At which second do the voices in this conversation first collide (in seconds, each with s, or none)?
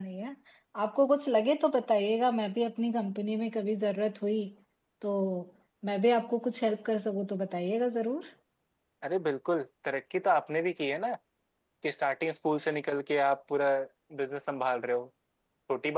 none